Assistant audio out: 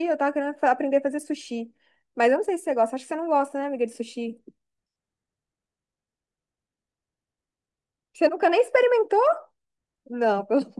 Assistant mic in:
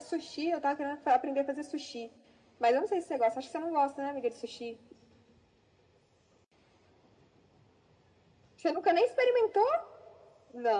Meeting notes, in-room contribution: none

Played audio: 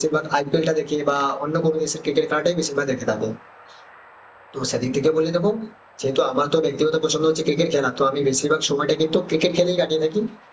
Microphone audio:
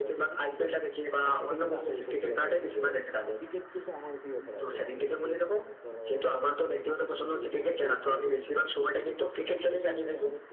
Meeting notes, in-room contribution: present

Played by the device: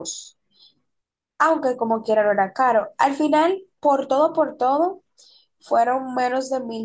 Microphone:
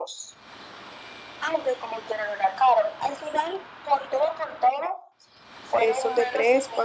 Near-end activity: present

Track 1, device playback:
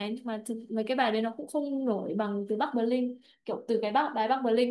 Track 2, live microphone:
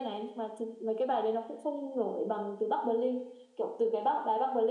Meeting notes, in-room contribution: none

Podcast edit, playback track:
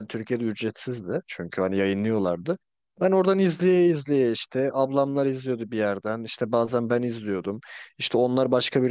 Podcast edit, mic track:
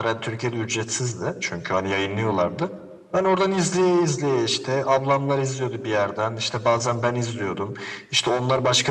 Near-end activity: none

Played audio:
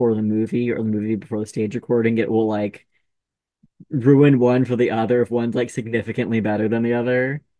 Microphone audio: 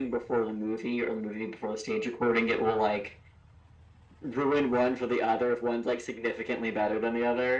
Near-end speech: none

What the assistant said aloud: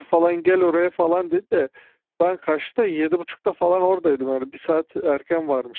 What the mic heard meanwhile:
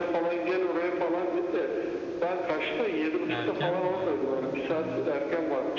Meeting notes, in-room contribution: present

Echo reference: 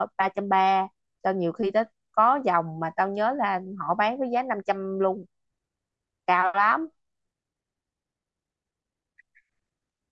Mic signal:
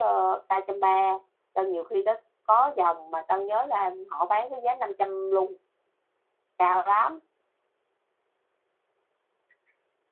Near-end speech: none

